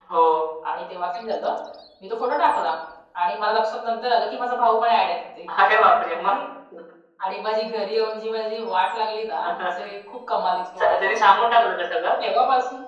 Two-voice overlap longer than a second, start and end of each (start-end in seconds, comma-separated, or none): none